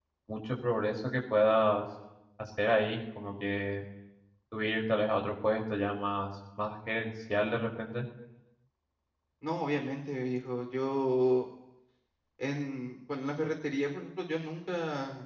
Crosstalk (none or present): none